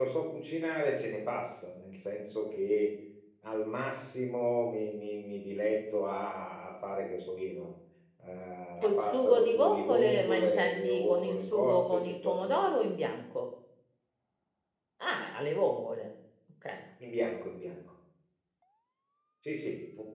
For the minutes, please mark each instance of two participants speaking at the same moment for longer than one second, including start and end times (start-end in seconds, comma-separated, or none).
8.8-12.7